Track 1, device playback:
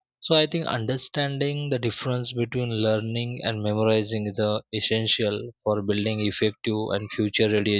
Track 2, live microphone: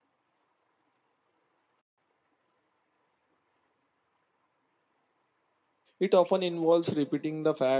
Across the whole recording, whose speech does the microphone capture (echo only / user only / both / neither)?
user only